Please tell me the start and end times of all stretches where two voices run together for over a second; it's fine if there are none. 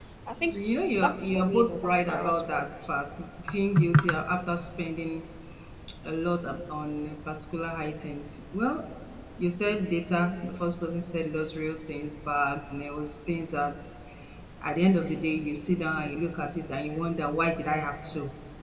1.0-2.7

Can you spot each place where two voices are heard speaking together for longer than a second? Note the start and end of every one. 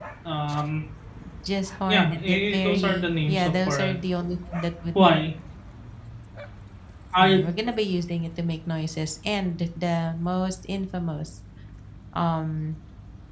1.9-3.9

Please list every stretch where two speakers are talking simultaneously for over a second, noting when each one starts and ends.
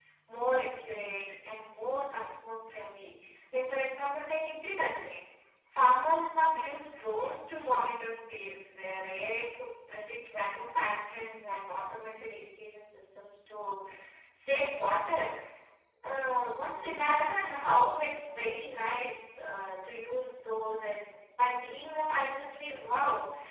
none

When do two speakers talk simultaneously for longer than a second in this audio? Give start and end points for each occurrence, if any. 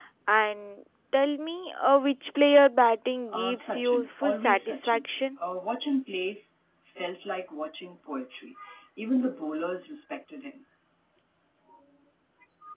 3.3-5.1

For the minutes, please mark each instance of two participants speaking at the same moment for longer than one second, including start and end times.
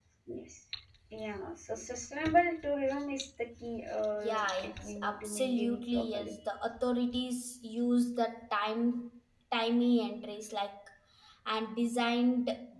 4.2-6.3

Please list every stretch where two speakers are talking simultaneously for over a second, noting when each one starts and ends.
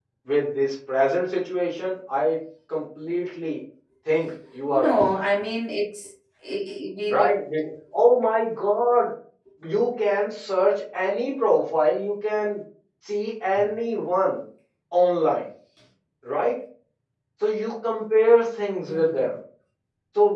none

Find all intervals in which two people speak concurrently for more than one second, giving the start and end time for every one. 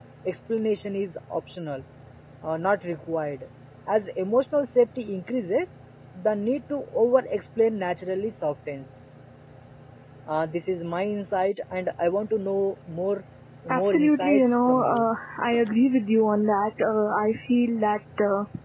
13.7-15.0

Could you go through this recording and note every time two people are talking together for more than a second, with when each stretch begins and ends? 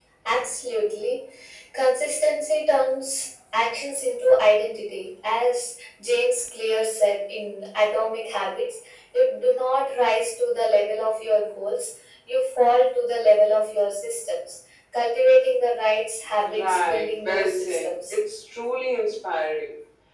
16.6-18.1

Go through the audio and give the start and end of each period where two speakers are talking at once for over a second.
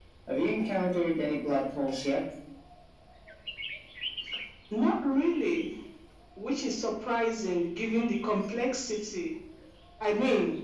none

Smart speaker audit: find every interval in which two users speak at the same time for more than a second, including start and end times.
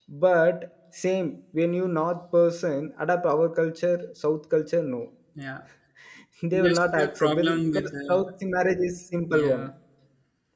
6.5-8.3

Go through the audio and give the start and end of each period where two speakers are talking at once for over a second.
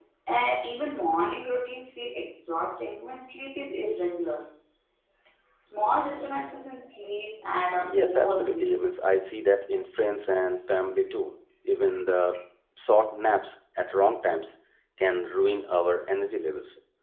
7.8-9.1

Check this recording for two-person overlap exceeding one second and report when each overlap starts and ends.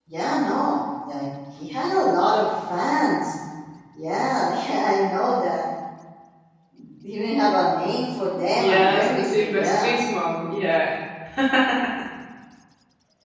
8.6-9.9

